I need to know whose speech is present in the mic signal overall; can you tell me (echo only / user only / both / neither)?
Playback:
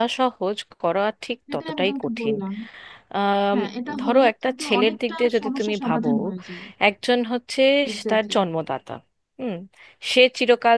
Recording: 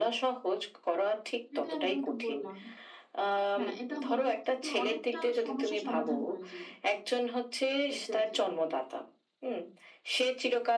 echo only